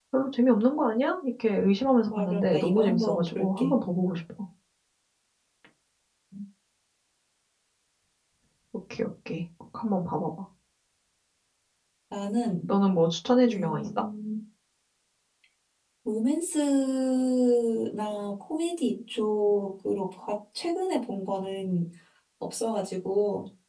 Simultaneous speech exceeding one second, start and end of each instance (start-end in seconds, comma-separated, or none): 2.1-3.8